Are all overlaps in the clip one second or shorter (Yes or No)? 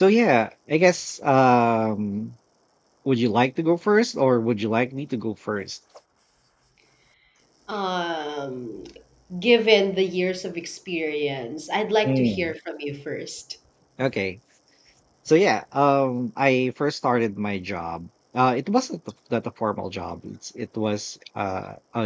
Yes